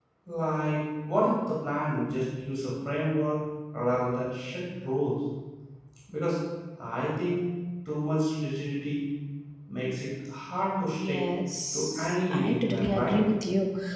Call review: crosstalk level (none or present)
present